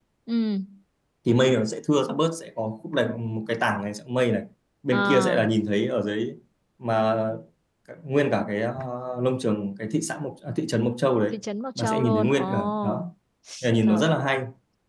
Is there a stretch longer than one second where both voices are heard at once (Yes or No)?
Yes